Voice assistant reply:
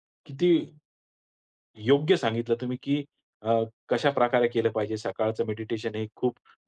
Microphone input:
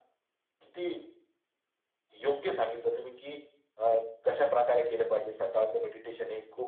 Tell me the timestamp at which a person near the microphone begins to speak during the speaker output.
none

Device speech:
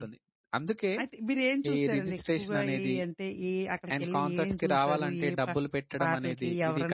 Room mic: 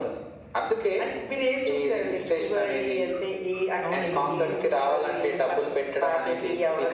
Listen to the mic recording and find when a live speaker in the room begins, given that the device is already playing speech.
3.9 s

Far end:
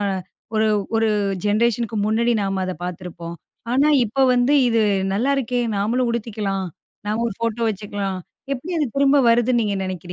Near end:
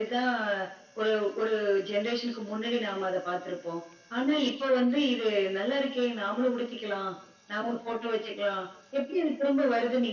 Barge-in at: none

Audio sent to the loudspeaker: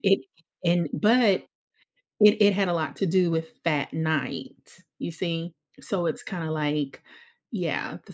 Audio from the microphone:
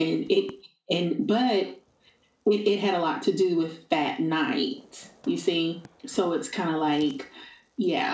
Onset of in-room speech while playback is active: none

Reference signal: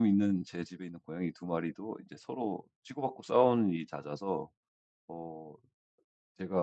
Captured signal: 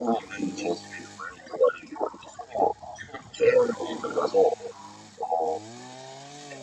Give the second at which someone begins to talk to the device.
none

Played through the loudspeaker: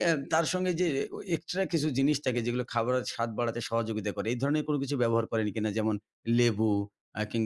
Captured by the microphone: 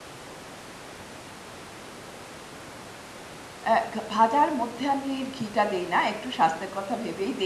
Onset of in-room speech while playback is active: 3.7 s

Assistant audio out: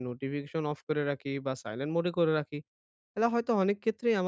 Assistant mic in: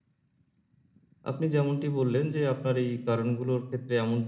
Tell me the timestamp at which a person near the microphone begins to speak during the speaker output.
1.3 s

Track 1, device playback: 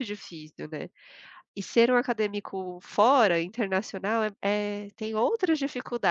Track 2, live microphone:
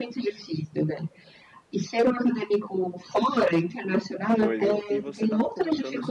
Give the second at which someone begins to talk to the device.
4.4 s

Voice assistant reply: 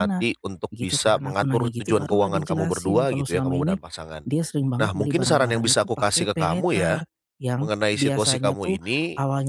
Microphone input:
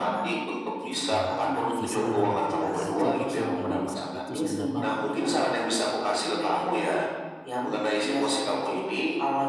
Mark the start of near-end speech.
1.1 s

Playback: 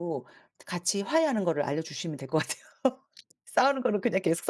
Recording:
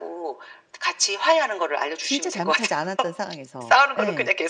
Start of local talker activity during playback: 2.0 s

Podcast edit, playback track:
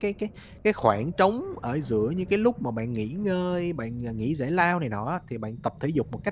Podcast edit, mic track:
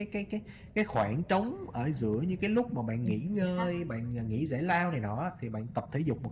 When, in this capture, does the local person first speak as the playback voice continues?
3.0 s

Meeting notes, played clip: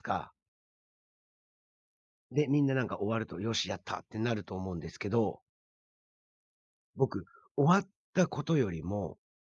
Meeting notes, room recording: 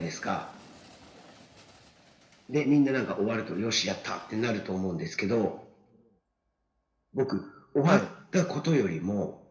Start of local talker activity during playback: 7.8 s

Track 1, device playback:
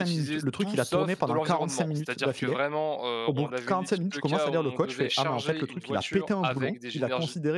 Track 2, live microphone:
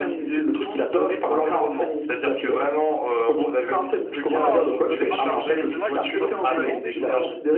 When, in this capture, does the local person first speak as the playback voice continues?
4.0 s

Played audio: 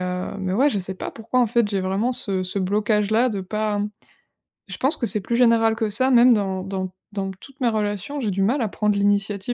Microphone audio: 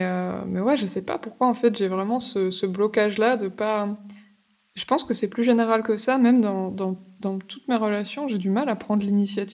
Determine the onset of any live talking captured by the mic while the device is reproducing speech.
none

